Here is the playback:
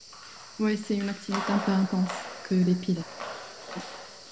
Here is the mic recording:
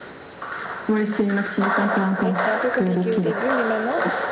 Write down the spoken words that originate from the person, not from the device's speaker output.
Bref, c'était un peu compliqué au début, mais maintenant,

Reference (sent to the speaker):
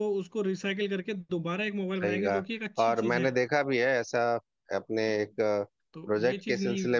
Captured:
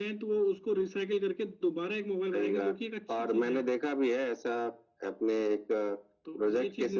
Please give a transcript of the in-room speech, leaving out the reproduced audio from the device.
none

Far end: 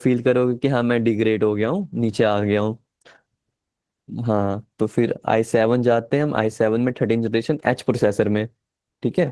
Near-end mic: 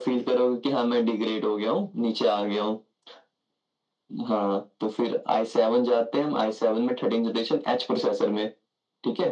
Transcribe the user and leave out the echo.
none

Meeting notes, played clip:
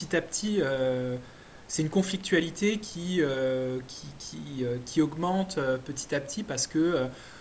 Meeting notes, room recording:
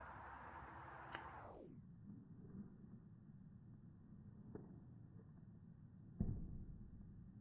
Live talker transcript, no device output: none

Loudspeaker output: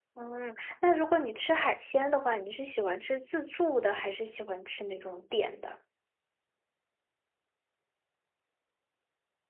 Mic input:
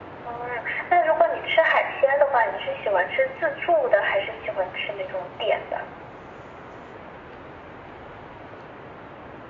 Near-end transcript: none

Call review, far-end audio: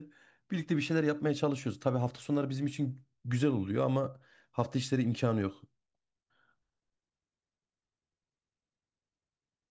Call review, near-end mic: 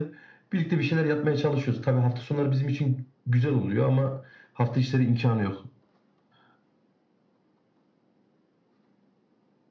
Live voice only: none

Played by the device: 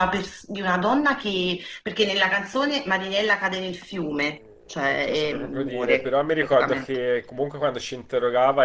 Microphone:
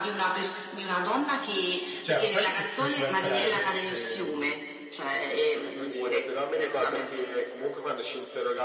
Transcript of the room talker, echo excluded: cioè, ma poi ti, ti faceva imparare quelle, ti- ehm,

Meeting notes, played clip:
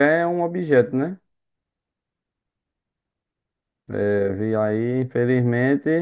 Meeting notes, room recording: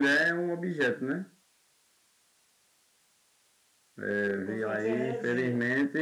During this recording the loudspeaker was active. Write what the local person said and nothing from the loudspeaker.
pra fazer a resenha.

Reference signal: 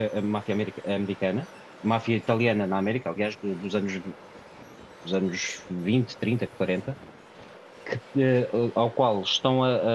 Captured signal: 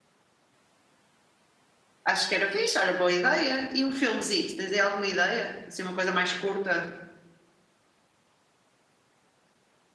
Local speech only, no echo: acho que era fixe, olha, boa ideia. E um filmezito, tens aí alguma ideia? Assim, uma coisa mais curta?

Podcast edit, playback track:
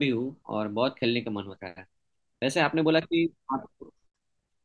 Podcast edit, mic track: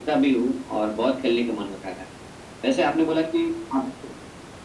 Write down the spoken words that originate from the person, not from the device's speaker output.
none

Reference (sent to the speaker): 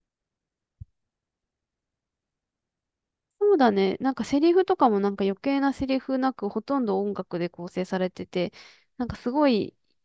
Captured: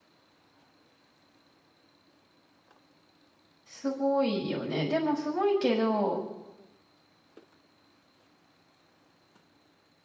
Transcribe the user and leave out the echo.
すごいよね。でもすごいけど、

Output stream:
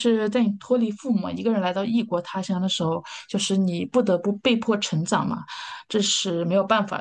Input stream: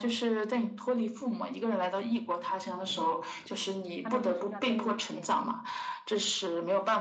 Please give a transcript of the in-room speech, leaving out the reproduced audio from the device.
他们就是要给你一些。

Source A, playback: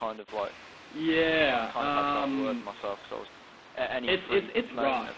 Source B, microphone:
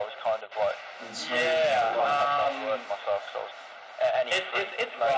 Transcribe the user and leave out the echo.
and smoking that like

